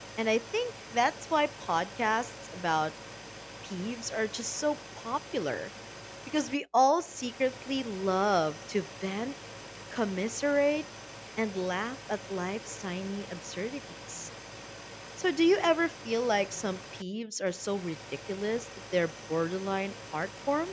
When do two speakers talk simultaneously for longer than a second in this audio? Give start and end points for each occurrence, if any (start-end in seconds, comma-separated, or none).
none